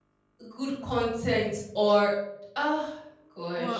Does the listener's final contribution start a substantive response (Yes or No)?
Yes